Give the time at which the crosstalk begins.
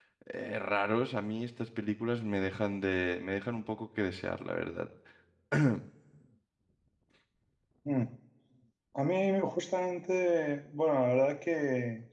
none

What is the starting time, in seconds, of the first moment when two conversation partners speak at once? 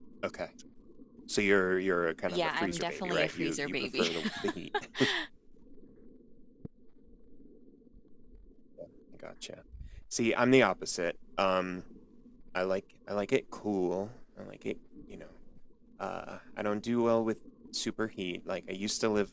2.3 s

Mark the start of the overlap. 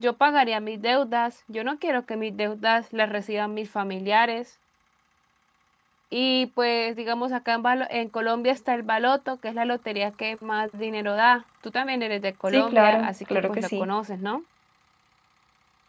12.5 s

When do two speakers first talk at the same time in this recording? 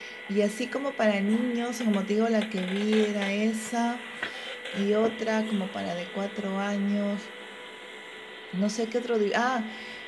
none

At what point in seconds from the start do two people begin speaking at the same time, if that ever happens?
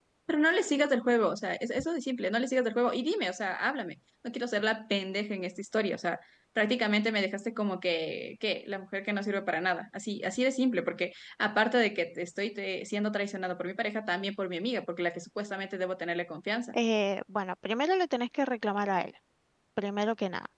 none

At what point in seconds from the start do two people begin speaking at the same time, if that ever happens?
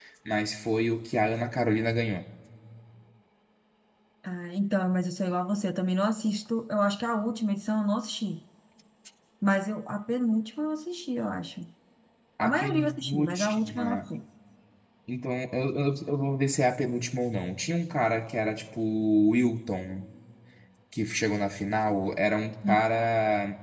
12.4 s

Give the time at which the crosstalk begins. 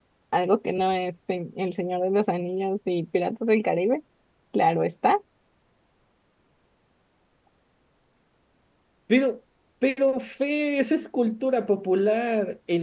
none

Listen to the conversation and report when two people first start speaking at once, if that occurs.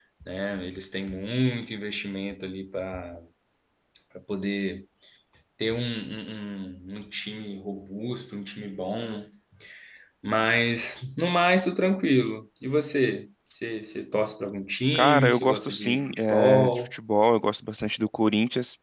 14.9 s

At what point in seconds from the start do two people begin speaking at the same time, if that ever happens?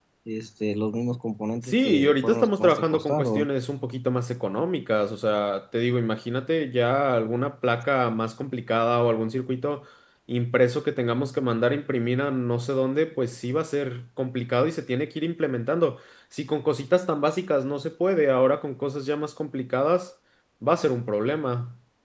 1.6 s

